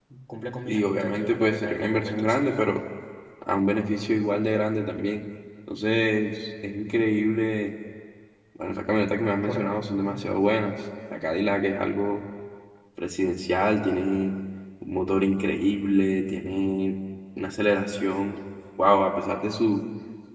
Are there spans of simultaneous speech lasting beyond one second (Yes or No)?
Yes